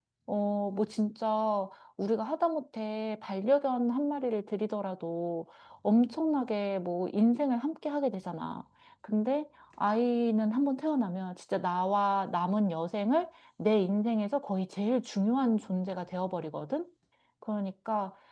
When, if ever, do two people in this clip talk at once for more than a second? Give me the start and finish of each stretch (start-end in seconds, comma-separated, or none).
none